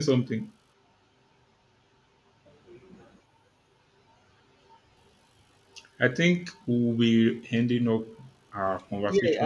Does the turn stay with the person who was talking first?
No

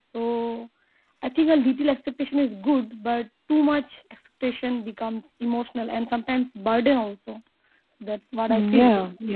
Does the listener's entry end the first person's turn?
Yes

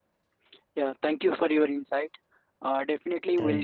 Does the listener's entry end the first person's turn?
No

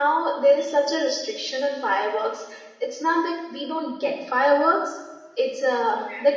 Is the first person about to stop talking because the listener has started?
No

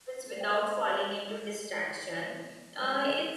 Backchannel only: Yes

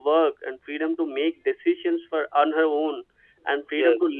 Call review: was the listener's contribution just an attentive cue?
Yes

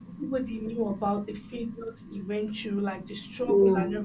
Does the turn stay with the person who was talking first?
Yes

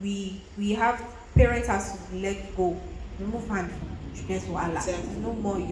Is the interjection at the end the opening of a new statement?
No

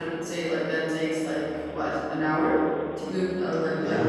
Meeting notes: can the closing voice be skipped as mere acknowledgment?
No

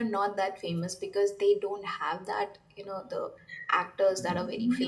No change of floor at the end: No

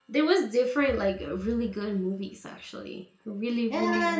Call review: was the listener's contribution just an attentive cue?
No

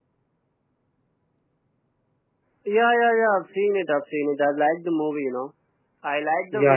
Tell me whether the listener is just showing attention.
Yes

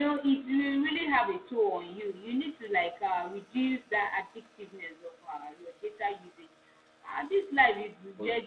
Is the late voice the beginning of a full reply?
No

